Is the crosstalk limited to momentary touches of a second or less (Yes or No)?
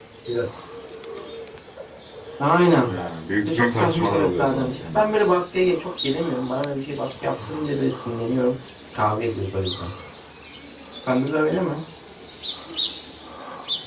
No